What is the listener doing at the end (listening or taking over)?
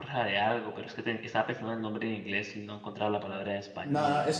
taking over